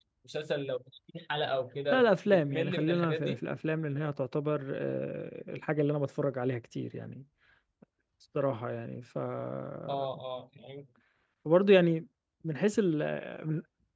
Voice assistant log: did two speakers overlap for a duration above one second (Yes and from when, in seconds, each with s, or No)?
Yes, from 1.9 s